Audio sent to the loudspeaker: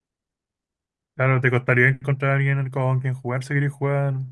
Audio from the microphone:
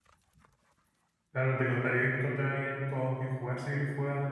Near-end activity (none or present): none